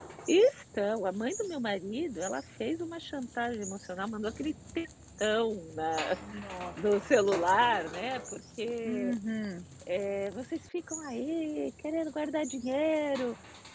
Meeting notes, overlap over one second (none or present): none